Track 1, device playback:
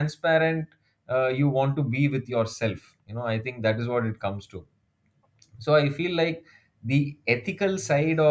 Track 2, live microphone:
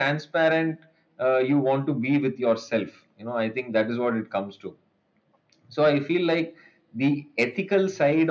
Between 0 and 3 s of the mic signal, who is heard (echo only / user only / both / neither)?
echo only